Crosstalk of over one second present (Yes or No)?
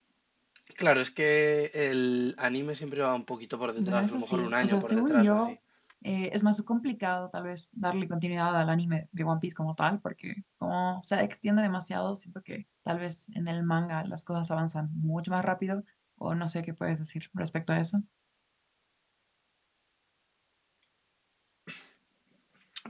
Yes